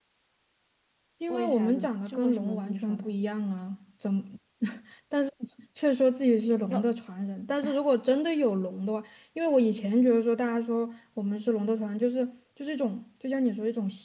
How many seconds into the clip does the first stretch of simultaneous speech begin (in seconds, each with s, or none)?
1.3 s